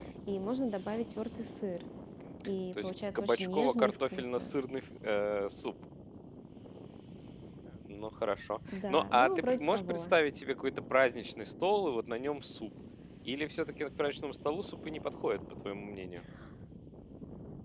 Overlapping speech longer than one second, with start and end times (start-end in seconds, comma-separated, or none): 2.8-4.5, 8.7-10.1